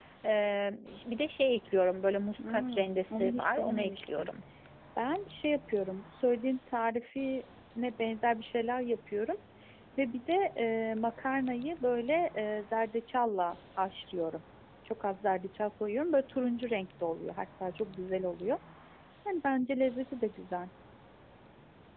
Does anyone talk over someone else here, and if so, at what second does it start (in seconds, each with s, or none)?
2.4 s